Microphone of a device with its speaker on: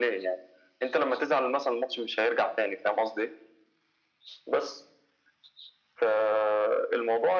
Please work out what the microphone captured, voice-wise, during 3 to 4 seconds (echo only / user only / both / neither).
echo only